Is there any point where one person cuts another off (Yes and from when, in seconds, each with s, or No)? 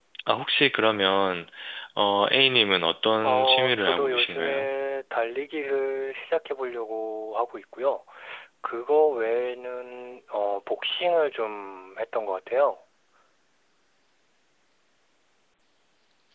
Yes, from 3.2 s